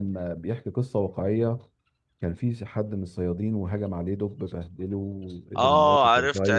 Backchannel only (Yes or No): No